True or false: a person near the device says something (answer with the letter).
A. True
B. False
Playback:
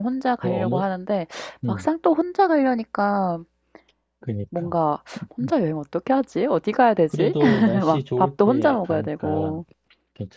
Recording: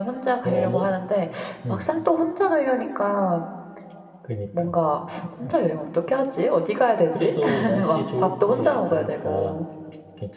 B